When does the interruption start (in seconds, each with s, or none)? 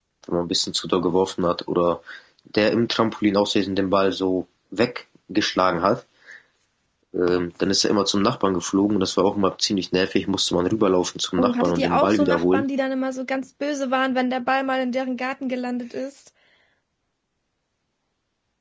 11.4 s